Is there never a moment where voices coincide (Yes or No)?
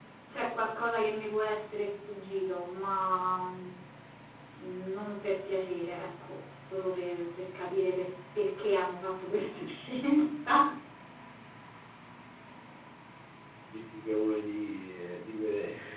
Yes